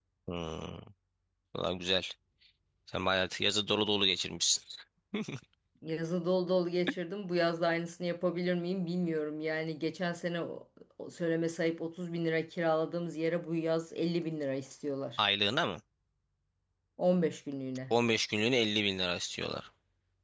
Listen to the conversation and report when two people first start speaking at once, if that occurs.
none

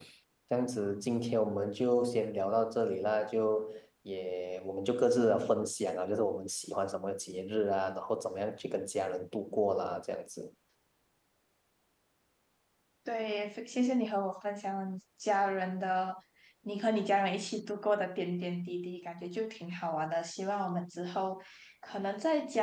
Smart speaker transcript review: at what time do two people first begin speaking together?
none

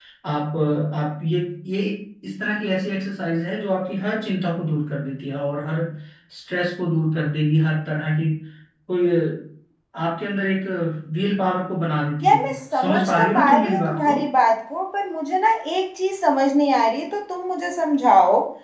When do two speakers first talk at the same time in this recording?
12.2 s

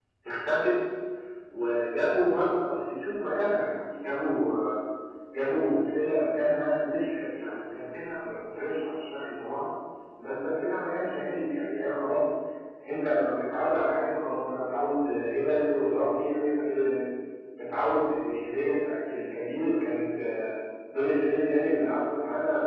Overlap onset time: none

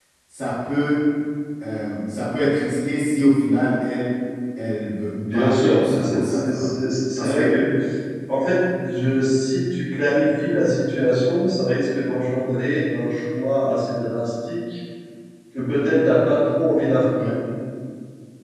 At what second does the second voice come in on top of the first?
5.3 s

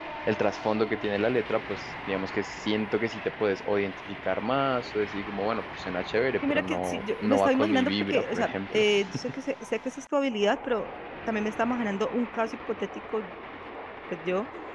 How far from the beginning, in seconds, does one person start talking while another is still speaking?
6.4 s

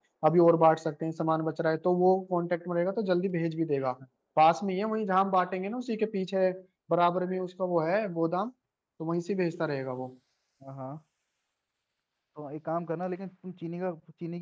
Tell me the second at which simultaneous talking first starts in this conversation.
none

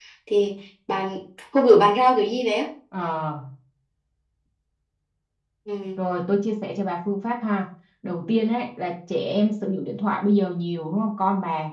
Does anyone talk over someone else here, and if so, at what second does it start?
none

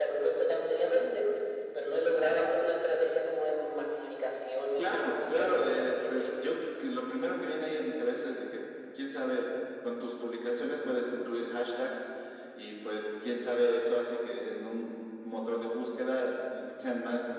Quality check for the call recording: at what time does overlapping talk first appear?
4.8 s

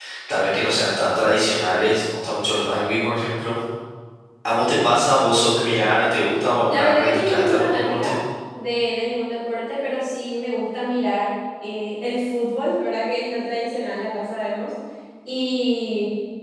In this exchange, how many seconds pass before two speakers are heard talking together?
6.7 s

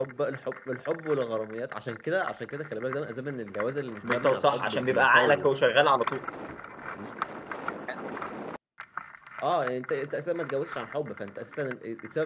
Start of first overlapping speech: 4.0 s

